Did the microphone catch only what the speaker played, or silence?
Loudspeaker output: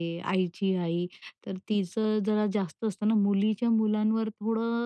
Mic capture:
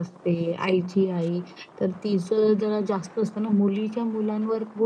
Yes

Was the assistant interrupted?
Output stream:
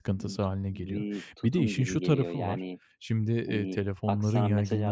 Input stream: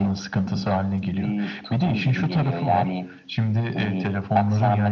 No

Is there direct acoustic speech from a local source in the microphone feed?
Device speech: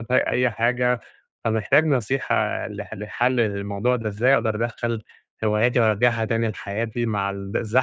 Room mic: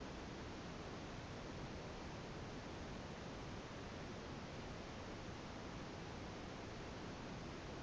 No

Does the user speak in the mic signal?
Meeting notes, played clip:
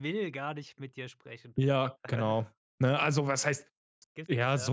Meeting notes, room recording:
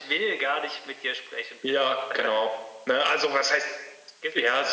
No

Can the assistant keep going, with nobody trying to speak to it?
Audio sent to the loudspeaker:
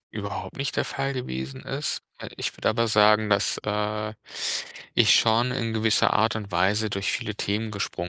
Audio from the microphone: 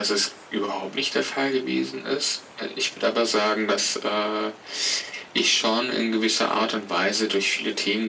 Yes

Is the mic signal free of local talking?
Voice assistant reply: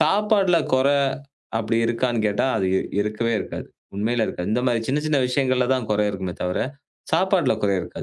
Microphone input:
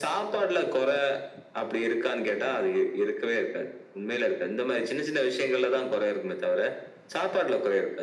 Yes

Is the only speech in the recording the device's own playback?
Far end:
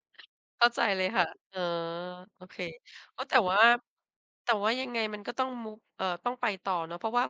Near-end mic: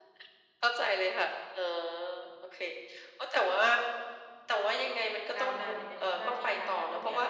No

